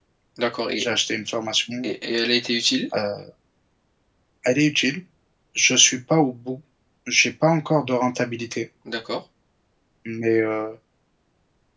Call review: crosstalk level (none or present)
none